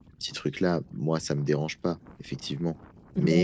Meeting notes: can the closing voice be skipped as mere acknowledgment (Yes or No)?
Yes